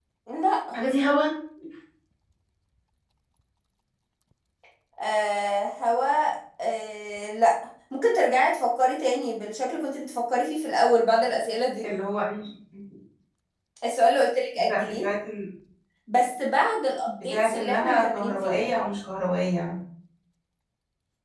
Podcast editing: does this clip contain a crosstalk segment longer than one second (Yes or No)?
Yes